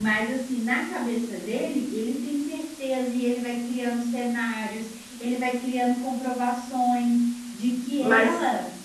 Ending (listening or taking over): listening